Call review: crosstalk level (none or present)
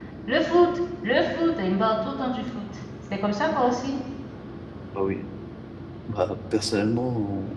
none